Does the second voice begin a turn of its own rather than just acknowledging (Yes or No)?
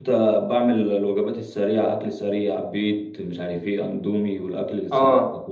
Yes